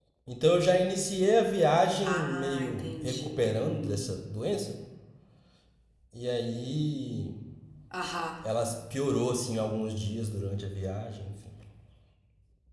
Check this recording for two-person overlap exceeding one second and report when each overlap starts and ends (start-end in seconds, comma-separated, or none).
2.0-3.4